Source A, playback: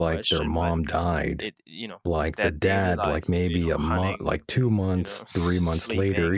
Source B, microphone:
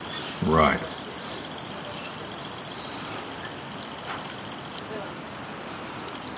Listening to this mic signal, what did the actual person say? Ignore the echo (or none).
right,